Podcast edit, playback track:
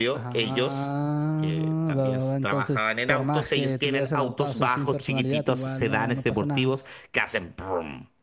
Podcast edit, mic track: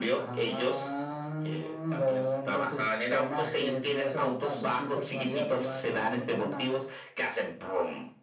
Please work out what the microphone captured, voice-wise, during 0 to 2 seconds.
echo only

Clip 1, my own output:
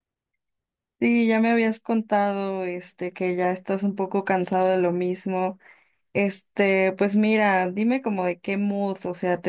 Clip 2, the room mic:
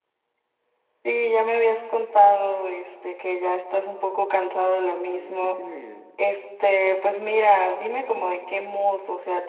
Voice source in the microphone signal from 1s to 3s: echo only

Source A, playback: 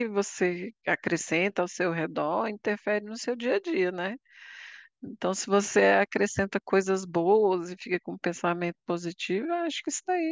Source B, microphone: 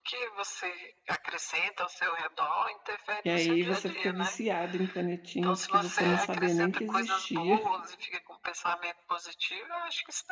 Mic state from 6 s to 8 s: both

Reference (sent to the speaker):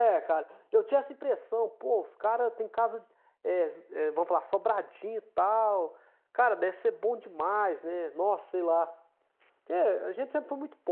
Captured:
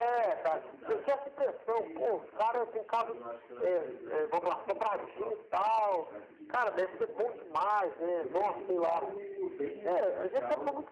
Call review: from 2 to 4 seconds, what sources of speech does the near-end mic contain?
both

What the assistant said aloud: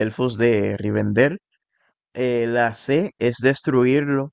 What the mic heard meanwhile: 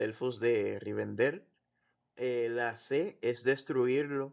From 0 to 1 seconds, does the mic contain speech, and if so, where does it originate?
echo only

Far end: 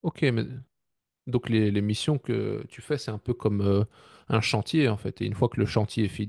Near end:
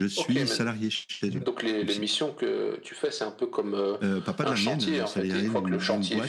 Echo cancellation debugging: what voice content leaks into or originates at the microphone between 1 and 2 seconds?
both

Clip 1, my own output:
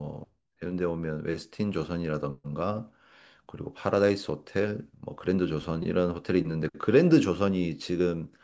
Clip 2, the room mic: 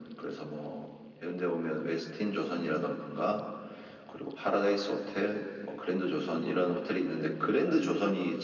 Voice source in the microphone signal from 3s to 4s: echo only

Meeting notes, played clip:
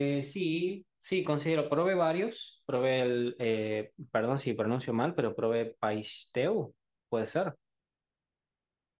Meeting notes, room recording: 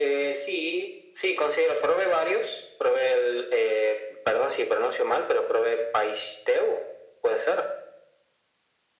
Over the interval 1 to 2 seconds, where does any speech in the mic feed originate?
echo only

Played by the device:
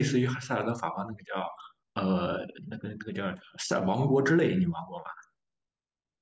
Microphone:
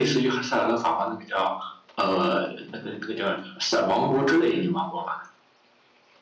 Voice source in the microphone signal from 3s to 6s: echo only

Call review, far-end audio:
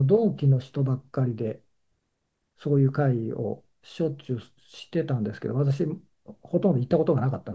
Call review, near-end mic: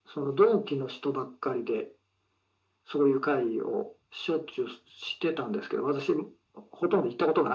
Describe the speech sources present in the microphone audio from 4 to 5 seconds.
echo only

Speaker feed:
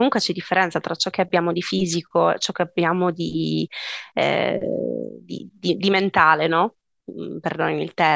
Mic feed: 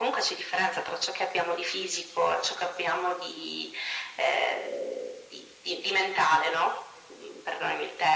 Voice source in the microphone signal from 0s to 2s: echo only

